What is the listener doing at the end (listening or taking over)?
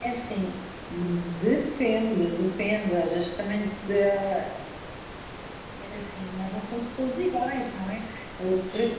listening